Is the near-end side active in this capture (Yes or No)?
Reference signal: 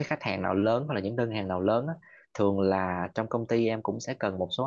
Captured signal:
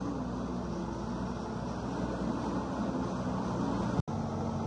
No